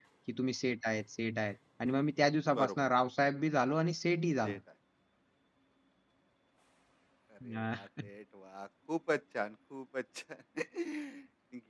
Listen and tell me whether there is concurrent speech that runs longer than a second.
No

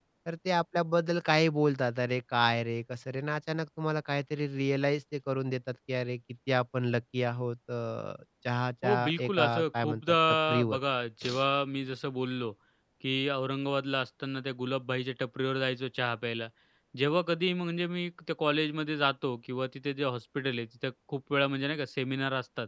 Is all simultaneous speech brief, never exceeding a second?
No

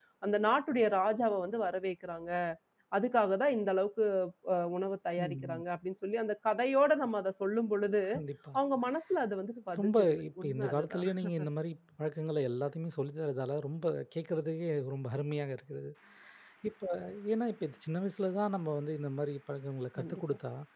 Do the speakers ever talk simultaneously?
Yes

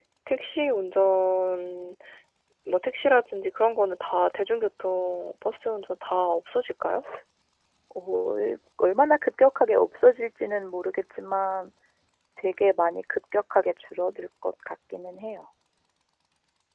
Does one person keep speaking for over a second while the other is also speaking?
No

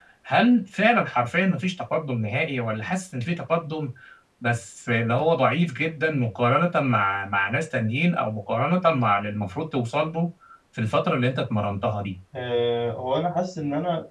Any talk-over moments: No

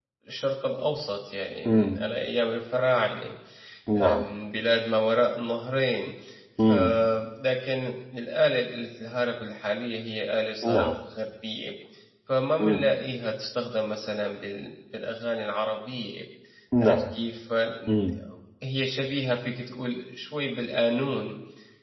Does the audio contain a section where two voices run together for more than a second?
No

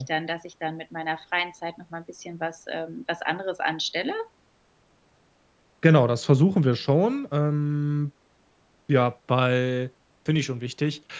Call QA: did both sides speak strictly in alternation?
Yes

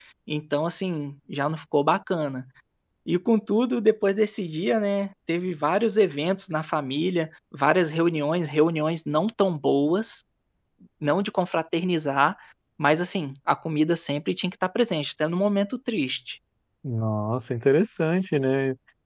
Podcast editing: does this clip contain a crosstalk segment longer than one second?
No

